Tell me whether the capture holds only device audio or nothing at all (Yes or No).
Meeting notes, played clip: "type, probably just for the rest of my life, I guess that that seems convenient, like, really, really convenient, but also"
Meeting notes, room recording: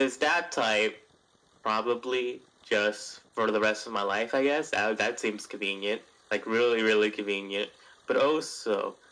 Yes